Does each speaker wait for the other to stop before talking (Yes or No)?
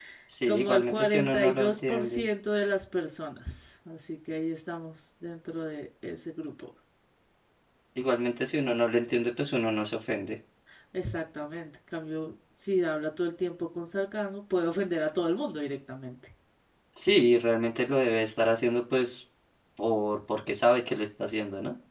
No